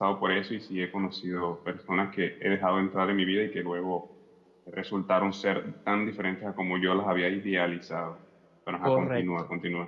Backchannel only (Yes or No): No